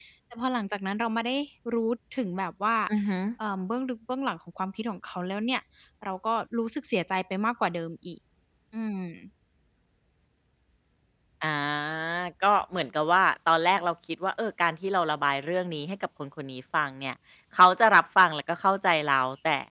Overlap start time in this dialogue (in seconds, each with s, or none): none